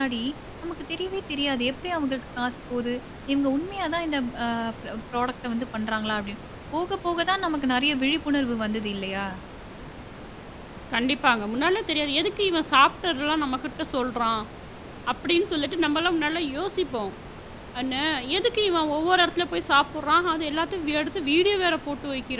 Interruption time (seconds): none

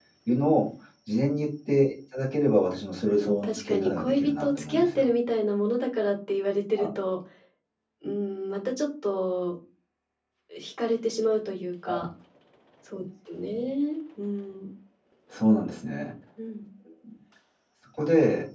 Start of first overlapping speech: 3.1 s

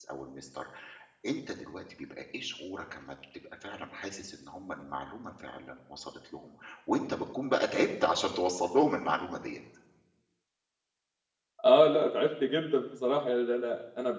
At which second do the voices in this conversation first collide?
none

